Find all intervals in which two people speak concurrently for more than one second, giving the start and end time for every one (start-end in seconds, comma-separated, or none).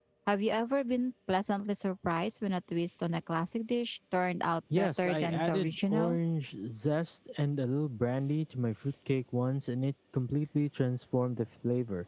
4.7-6.2